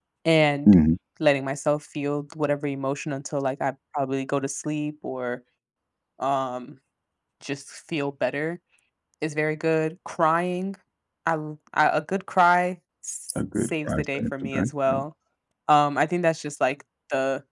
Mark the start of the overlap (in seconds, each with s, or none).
13.3 s